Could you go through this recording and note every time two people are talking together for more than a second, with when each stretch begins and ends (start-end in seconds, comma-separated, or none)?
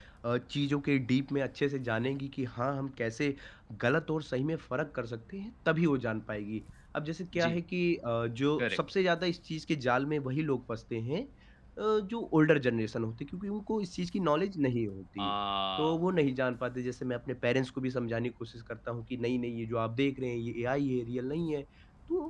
none